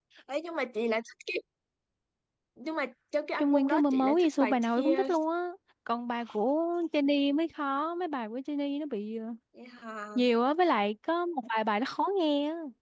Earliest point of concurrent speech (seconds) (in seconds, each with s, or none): 3.4 s